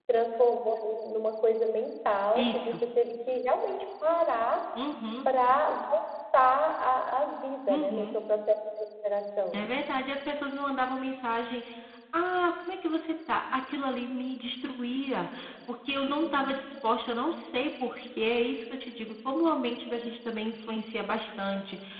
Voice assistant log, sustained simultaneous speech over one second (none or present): none